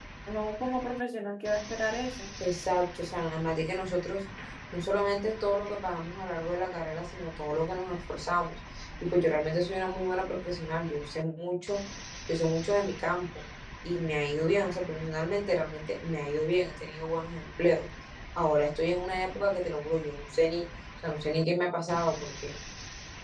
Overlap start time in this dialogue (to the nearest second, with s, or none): none